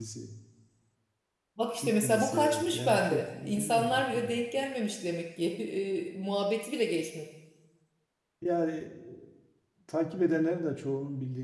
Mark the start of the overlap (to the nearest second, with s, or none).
2 s